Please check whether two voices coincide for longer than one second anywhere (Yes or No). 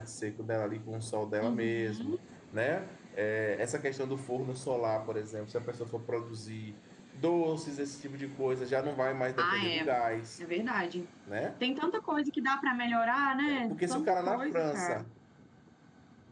Yes